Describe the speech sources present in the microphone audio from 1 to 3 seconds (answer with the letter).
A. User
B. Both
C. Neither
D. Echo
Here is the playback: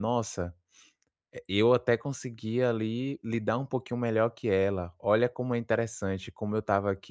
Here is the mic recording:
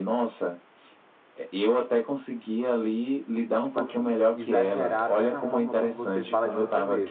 D